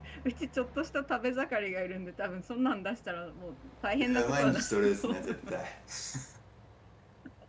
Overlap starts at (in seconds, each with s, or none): 4.0 s